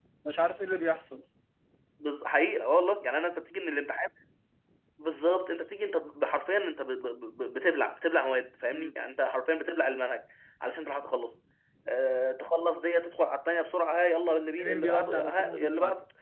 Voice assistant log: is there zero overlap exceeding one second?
No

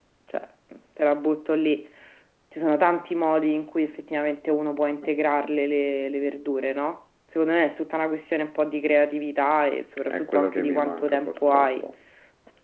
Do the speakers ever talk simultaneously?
Yes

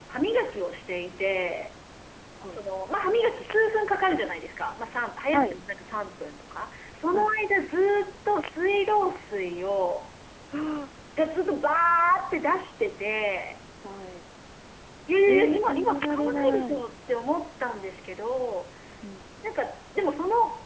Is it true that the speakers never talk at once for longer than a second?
No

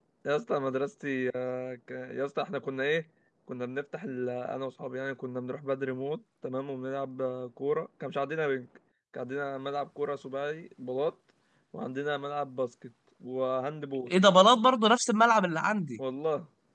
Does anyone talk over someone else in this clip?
No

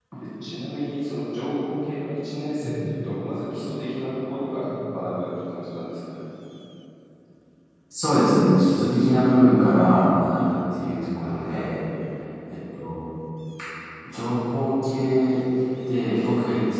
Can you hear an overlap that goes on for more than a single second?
No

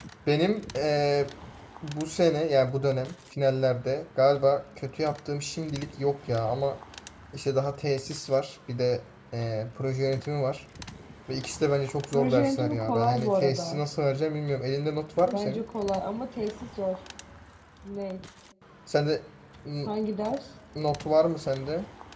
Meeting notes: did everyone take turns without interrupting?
No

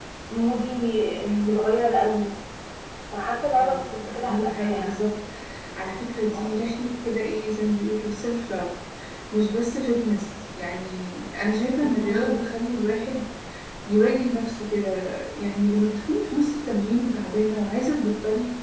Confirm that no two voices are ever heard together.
No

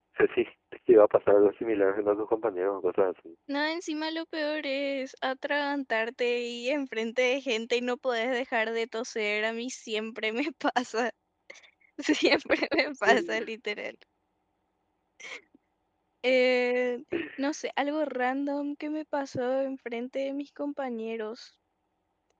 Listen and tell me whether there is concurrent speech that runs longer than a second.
No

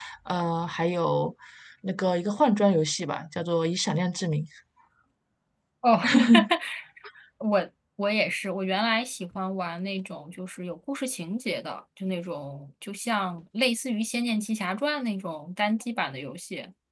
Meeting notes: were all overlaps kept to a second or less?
Yes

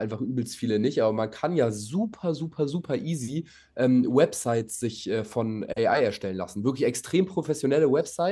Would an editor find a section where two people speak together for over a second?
No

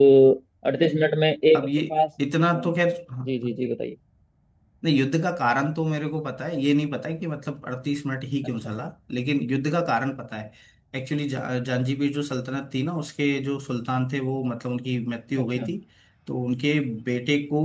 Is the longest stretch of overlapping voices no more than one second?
Yes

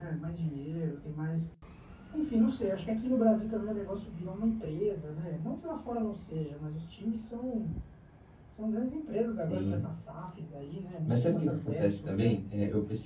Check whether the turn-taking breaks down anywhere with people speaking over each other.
Yes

